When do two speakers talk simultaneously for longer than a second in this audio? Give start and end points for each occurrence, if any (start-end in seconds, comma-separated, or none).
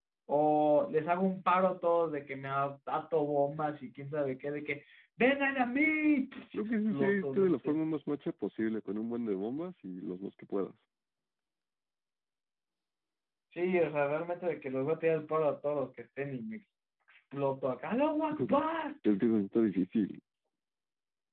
6.5-7.8